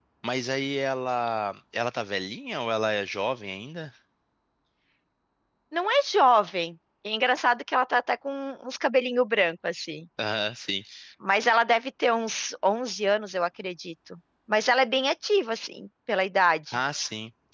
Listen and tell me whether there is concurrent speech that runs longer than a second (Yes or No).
No